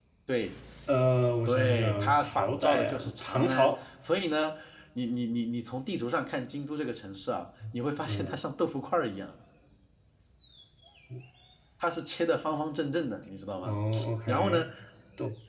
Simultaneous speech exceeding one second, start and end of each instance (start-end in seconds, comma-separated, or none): 1.4-3.7